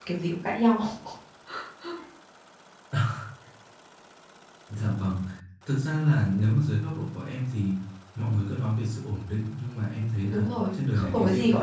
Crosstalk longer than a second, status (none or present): present